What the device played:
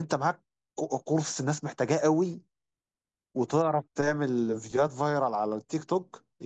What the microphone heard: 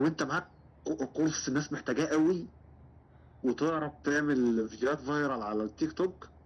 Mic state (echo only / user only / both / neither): echo only